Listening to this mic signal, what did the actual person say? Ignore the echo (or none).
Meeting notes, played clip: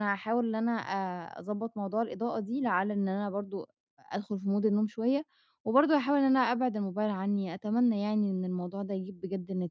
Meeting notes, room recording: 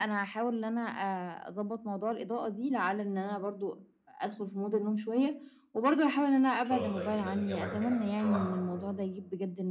إن شاء الله يجيب نتيجة معاكِ أحسن وأحسن كمان.